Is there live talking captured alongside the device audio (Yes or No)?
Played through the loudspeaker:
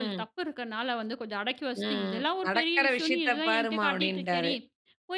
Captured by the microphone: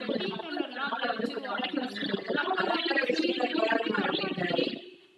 Yes